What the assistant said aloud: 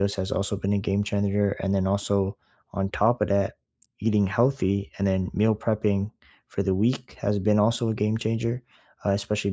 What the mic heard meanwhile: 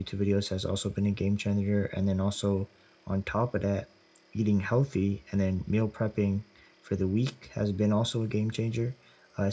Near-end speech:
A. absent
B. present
A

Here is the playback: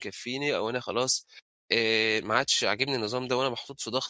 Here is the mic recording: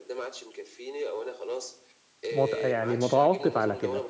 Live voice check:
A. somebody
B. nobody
A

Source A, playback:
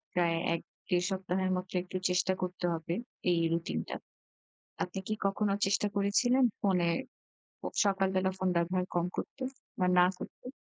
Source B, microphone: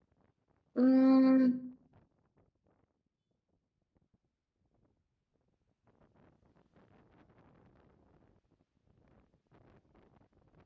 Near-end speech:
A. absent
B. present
B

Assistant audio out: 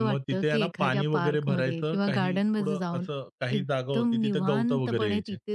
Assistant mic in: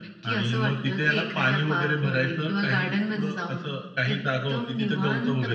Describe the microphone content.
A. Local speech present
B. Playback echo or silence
B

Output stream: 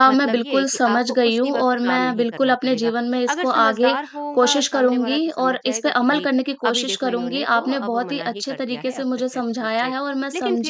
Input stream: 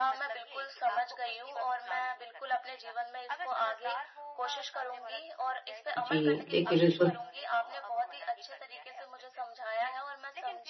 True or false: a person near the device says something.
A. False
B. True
B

